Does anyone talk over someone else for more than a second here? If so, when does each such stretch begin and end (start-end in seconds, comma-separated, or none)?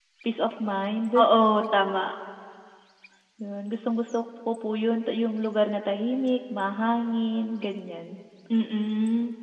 none